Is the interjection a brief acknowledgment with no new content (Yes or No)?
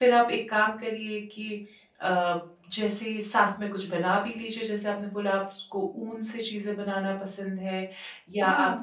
Yes